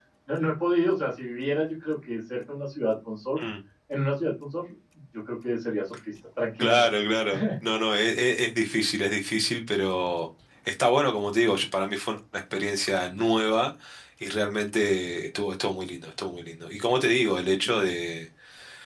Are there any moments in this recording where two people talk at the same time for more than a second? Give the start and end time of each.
none

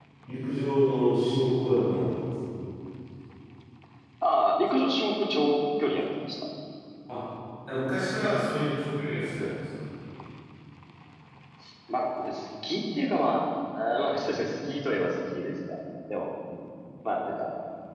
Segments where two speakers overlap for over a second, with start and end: none

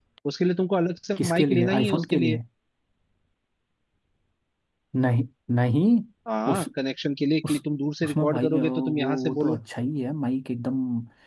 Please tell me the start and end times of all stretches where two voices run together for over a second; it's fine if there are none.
1.2-2.4, 8.0-9.6

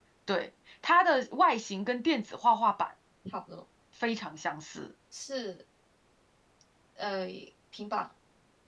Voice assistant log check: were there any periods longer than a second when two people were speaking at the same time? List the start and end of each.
none

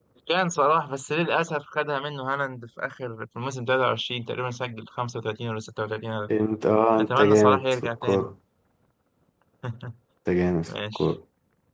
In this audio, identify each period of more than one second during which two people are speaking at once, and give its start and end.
7.0-8.3

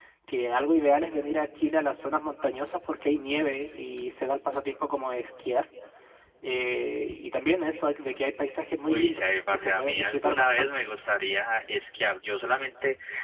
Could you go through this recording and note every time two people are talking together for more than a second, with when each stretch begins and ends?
8.9-10.7

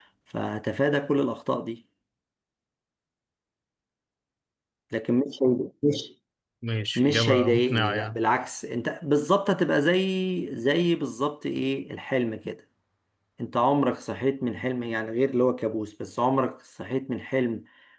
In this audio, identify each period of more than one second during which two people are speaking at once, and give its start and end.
7.0-8.2

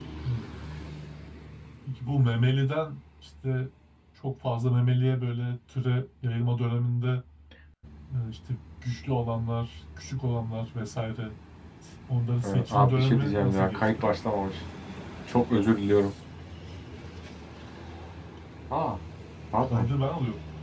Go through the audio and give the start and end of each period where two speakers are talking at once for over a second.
12.4-14.1

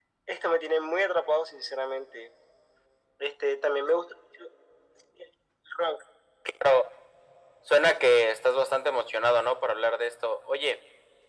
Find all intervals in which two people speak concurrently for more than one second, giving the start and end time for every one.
none

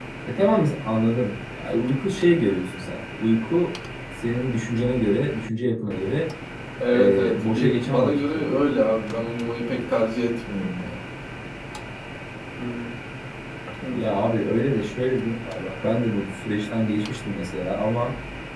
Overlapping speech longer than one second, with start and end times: 6.9-8.6

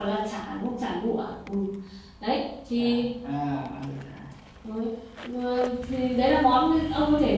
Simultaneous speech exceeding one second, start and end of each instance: none

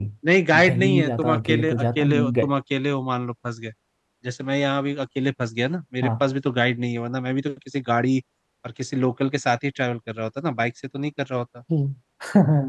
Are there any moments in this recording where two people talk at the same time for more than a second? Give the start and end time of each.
0.5-2.5

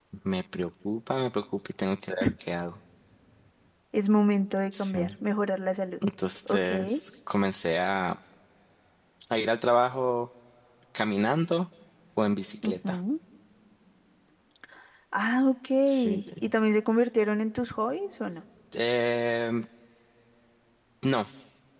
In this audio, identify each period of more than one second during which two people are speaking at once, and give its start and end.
none

